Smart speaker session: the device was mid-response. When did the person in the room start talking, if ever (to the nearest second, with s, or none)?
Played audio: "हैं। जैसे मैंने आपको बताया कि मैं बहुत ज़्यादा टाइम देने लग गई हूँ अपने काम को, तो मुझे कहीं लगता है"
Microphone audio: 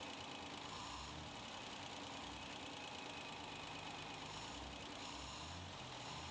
none